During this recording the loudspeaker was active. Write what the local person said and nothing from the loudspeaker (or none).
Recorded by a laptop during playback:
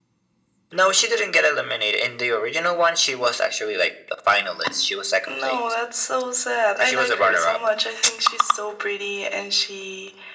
none